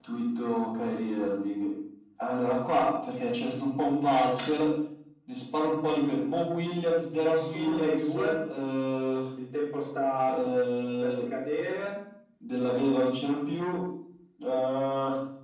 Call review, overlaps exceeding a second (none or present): present